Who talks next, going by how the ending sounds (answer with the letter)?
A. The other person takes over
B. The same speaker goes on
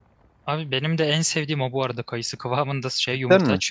B